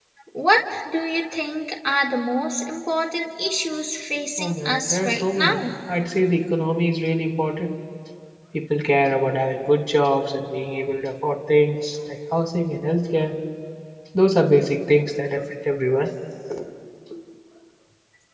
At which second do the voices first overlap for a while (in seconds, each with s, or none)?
4.4 s